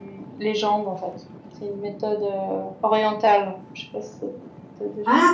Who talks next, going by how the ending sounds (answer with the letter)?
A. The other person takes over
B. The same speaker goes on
A